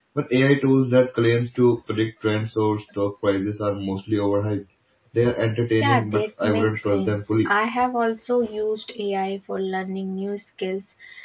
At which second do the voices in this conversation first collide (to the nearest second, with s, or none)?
6 s